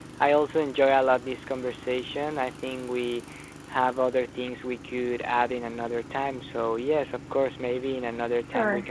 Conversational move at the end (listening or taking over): taking over